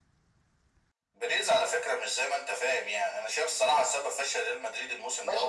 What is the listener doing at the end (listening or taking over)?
taking over